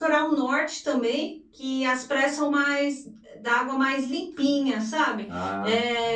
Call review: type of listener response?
listening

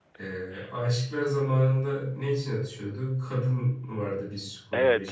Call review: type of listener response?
taking over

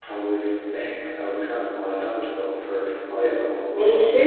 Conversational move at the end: taking over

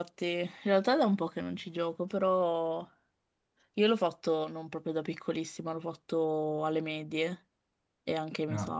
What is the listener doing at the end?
listening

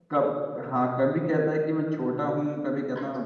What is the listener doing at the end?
taking over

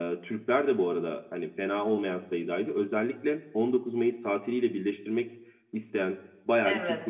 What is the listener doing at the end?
listening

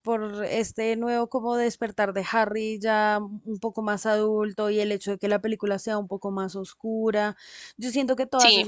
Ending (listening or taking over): listening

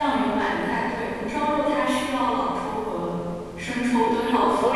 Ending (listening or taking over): taking over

